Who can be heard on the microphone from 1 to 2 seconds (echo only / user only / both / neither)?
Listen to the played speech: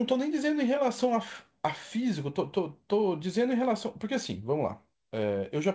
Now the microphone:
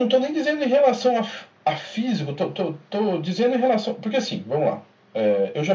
echo only